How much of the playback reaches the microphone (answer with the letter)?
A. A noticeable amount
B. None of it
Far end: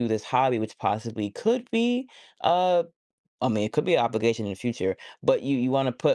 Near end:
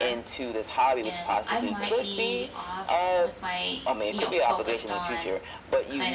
A